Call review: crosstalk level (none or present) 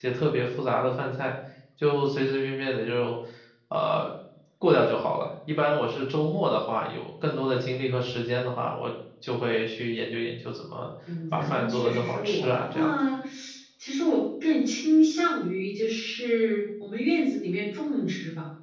present